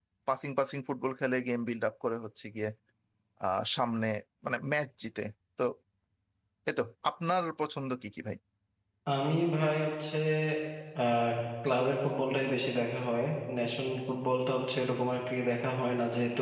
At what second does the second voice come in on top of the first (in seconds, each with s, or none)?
none